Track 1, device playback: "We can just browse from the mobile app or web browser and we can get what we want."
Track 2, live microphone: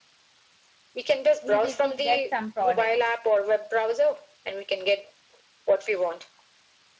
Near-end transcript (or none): easy to get some products.